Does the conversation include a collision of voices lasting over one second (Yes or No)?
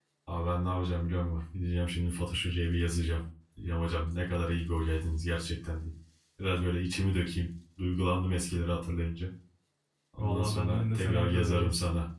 Yes